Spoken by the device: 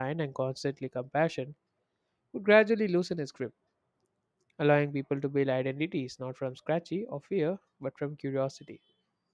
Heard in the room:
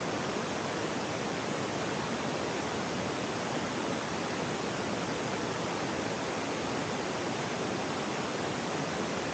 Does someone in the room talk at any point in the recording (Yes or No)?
No